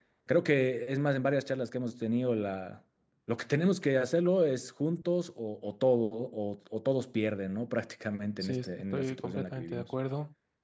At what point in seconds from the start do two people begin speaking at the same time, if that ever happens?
8.4 s

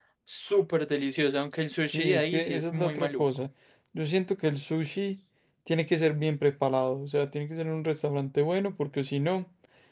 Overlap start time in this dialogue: 1.8 s

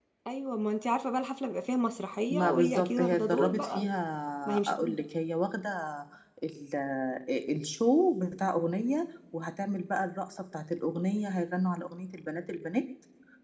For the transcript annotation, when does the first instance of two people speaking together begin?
2.3 s

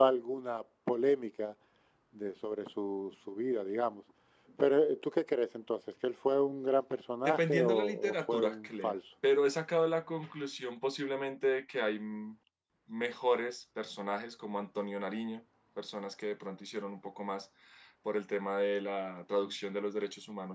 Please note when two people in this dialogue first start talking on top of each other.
7.2 s

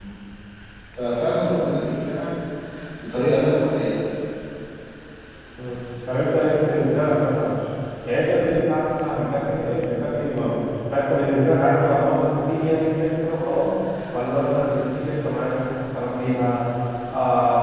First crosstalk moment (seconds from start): none

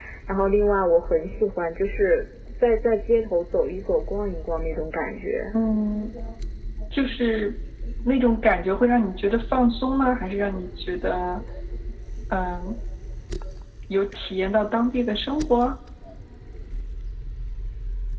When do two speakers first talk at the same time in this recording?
none

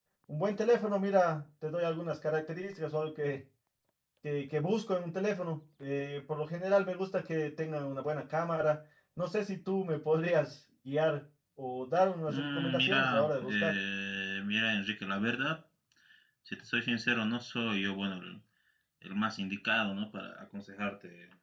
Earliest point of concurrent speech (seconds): 12.3 s

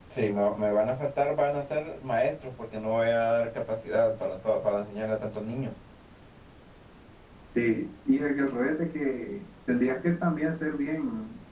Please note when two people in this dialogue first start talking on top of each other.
none

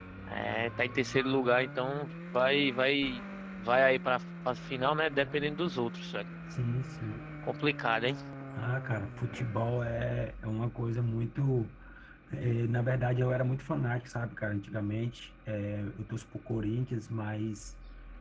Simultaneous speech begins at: none

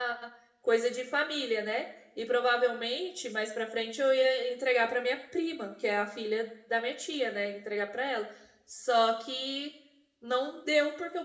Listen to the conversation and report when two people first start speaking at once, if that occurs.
none

